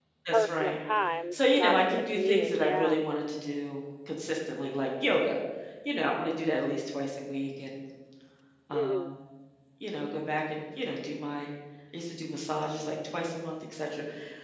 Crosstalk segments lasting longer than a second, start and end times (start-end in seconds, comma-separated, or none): 1.3-3.0